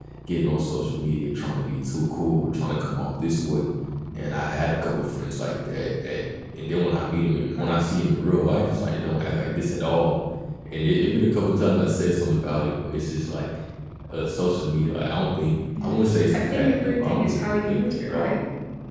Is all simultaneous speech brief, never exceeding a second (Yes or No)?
No